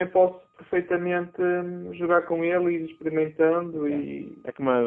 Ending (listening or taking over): taking over